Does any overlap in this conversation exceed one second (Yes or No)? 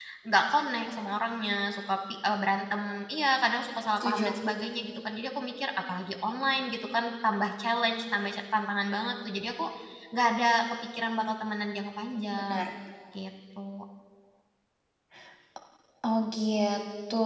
No